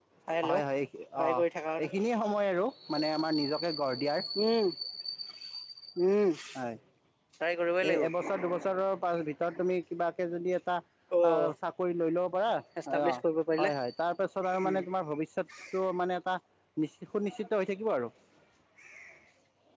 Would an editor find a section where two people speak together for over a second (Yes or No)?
No